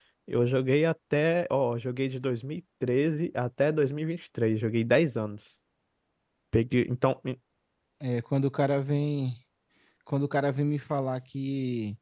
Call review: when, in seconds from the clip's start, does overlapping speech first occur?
none

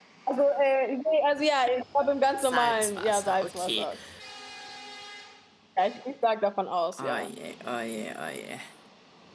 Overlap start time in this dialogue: 2 s

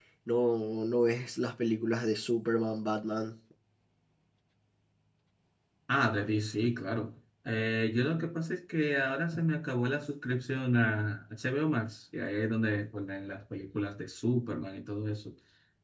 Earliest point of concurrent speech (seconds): none

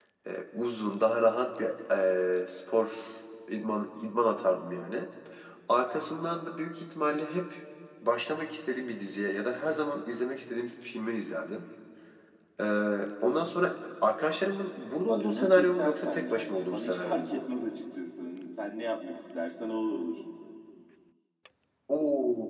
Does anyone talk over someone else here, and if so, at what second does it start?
15 s

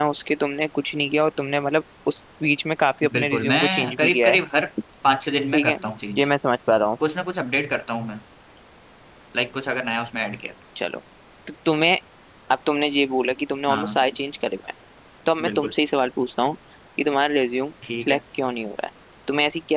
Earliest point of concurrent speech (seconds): 3 s

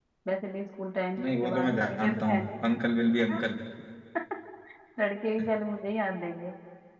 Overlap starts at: 1 s

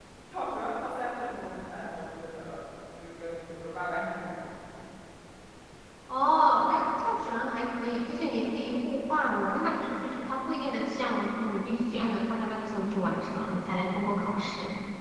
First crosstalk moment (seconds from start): none

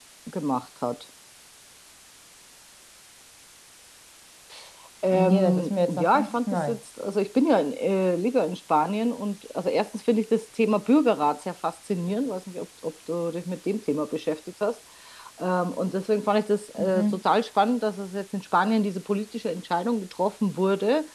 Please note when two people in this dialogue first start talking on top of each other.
5 s

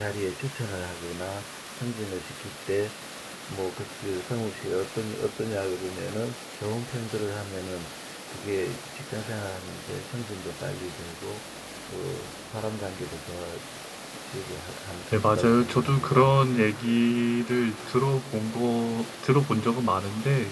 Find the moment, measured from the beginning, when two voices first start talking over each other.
15 s

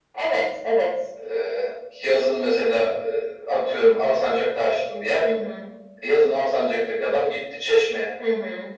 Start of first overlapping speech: none

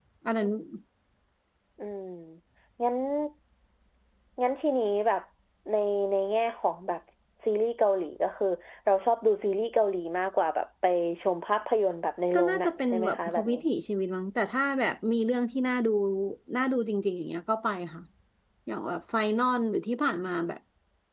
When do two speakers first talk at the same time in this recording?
12 s

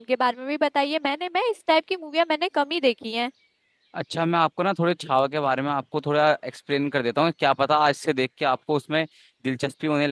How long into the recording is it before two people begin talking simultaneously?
none

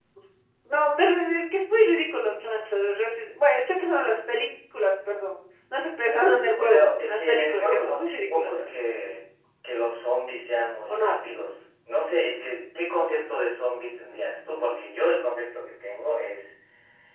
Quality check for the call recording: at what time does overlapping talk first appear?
7 s

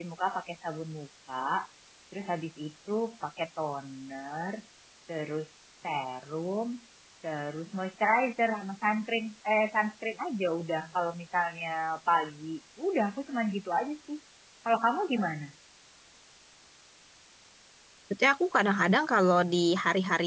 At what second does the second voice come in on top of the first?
none

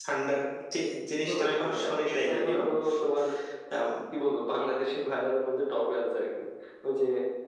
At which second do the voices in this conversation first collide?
1 s

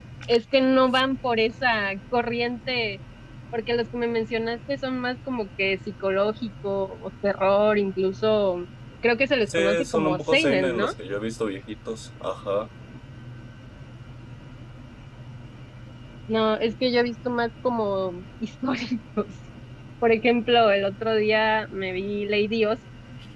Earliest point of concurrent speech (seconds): 9 s

